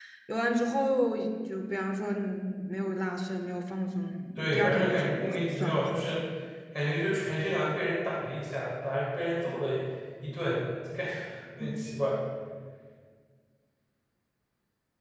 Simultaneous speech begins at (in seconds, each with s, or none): 4.5 s